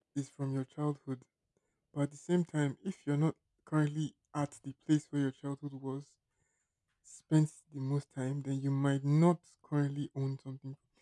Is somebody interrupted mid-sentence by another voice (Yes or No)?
No